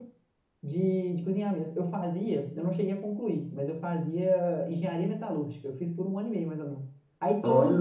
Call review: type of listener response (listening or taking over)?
listening